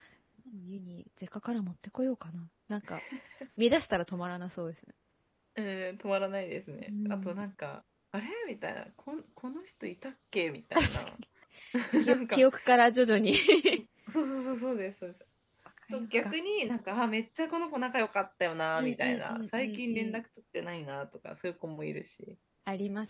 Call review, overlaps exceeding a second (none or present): present